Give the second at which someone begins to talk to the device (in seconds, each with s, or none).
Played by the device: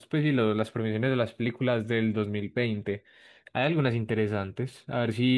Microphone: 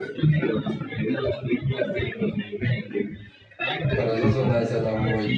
3.9 s